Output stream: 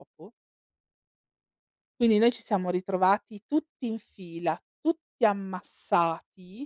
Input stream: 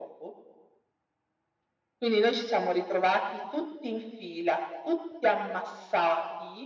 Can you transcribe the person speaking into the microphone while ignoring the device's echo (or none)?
none